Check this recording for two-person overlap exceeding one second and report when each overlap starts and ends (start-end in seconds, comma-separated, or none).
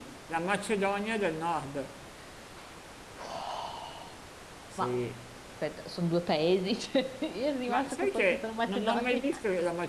7.7-9.3